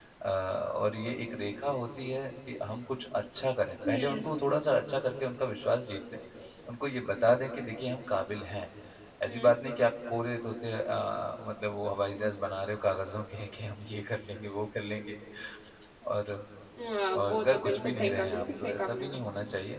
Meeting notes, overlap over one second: present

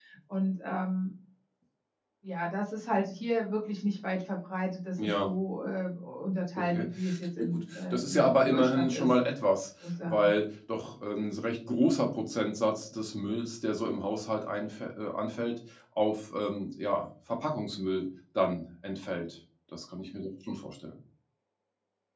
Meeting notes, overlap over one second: present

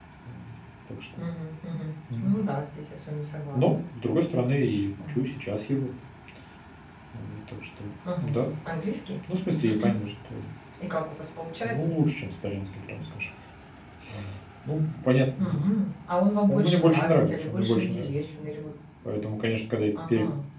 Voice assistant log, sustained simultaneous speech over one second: present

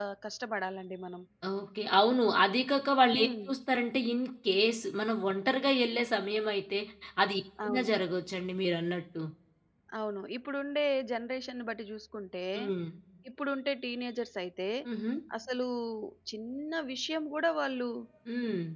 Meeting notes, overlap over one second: none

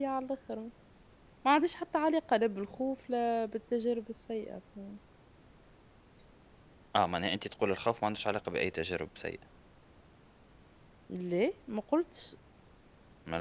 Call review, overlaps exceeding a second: none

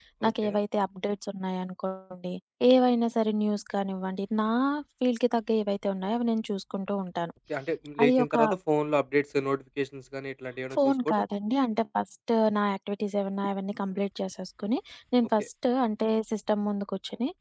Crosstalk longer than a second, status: none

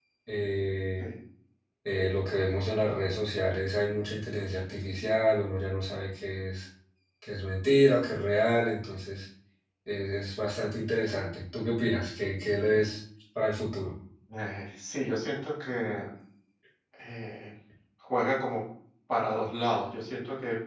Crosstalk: none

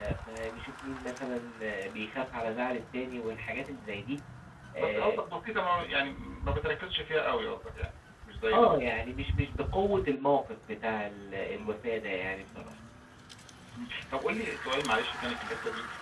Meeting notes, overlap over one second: none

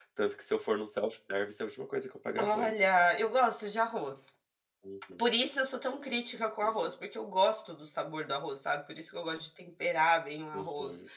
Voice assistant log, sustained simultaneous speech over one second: none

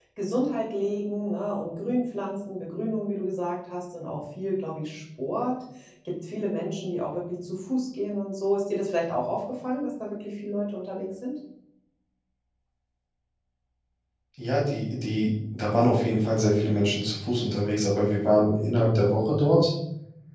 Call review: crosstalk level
none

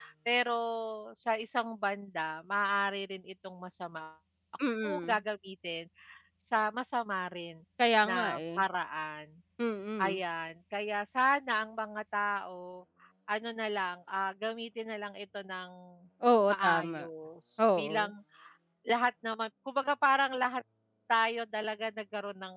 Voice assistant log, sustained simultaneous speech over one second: none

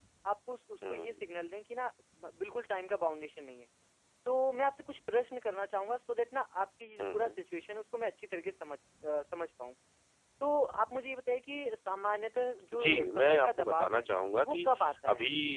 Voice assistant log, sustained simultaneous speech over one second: present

